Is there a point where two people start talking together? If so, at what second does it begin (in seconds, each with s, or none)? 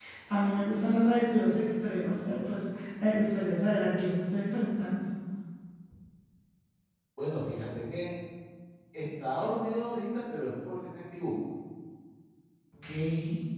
none